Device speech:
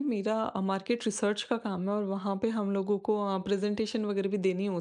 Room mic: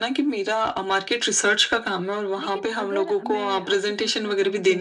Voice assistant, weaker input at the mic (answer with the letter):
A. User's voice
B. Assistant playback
A